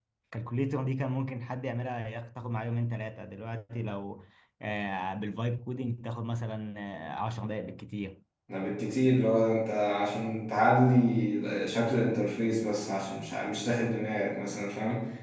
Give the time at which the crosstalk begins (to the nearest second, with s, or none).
none